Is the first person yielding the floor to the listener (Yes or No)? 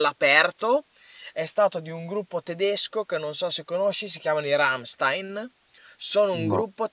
No